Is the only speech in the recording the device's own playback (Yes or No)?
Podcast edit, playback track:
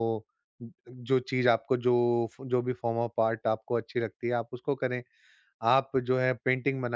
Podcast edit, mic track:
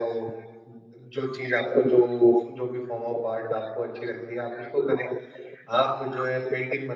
Yes